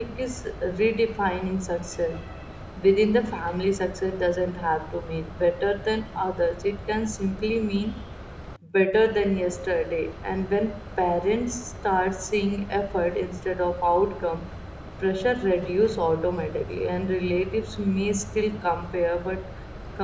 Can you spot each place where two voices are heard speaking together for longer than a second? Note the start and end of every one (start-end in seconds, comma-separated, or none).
none